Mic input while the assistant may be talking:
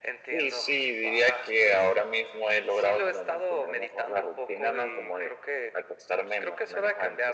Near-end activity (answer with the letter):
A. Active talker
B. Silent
B